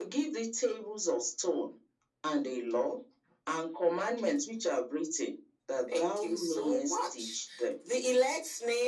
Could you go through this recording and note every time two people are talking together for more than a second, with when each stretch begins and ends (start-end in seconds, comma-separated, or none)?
6.0-7.4